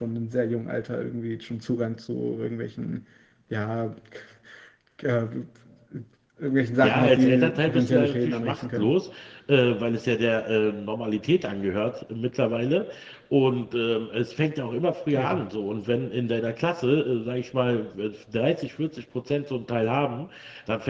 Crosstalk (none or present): present